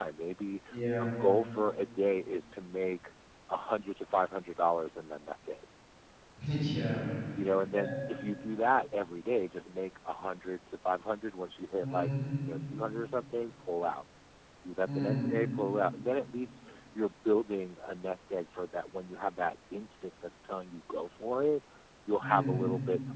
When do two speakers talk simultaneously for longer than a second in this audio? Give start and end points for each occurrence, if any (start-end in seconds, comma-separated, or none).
none